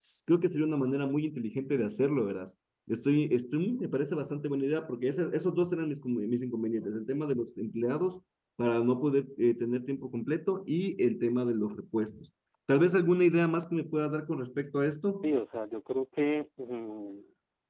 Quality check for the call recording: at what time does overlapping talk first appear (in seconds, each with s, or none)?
none